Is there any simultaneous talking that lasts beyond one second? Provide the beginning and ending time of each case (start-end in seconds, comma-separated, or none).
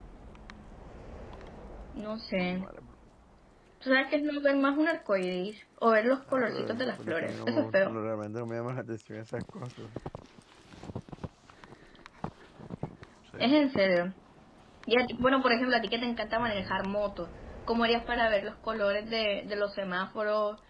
6.3-7.9